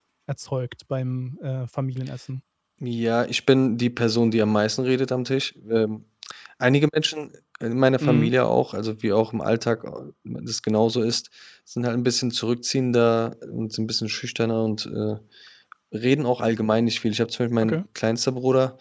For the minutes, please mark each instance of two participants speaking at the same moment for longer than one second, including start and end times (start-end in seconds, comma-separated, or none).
none